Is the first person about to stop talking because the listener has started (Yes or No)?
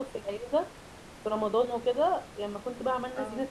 No